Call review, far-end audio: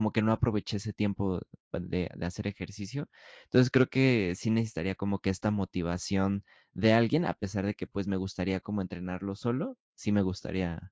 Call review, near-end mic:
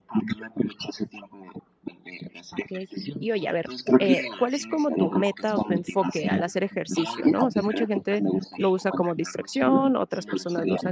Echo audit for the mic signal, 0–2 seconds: echo only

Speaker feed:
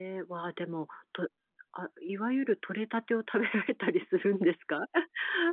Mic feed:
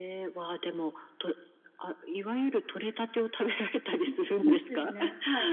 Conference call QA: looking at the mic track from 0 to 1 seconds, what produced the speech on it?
echo only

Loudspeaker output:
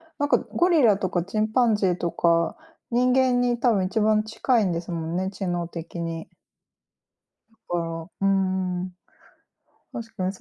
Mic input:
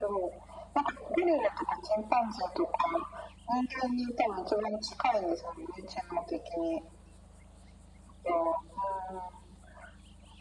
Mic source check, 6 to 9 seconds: echo only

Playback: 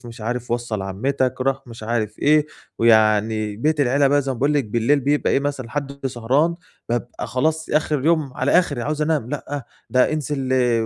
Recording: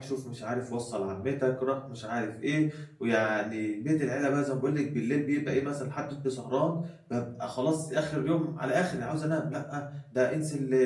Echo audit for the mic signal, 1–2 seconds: echo only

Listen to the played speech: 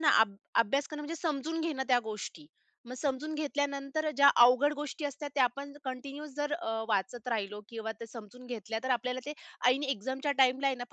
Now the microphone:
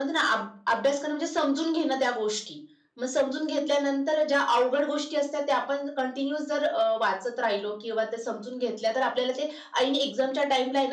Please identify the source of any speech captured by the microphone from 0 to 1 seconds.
echo only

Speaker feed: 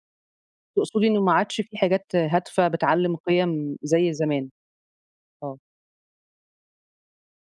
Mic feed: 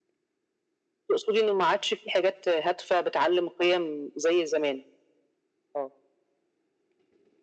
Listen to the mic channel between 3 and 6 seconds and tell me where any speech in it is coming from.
echo only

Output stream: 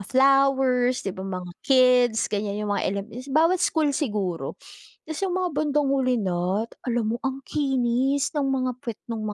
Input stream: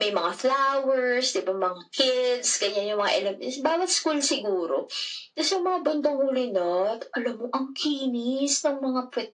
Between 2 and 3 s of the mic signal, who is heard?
echo only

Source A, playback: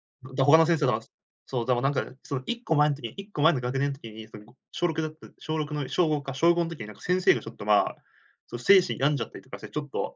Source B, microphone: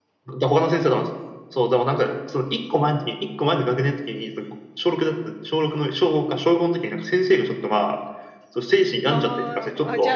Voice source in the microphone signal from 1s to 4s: echo only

